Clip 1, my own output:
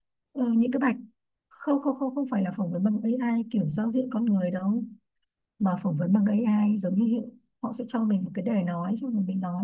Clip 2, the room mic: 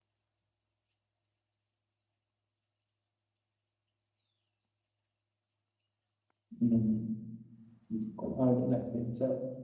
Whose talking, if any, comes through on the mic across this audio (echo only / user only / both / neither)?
user only